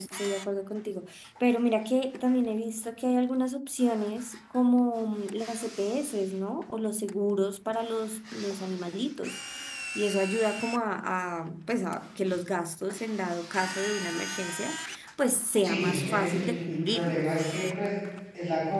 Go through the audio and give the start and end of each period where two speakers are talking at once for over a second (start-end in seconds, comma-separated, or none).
15.6-17.3